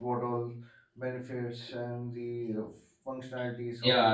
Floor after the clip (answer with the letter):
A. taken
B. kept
A